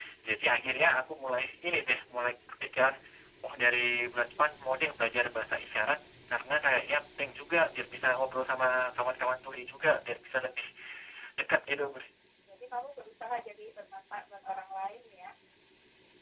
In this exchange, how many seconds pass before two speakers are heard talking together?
none

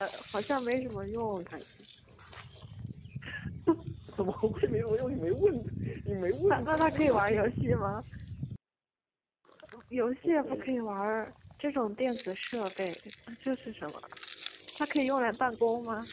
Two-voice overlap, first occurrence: 6.5 s

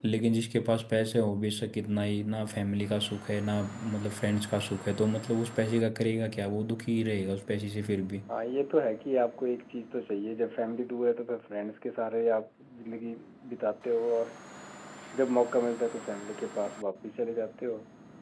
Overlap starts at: none

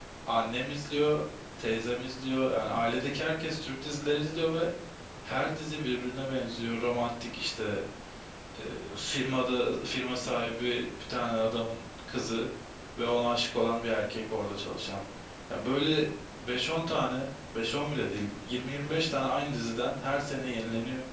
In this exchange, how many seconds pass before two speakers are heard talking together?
none

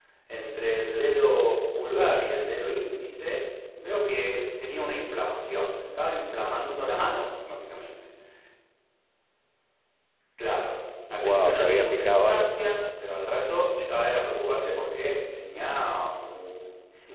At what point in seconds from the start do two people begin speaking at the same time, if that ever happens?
11.2 s

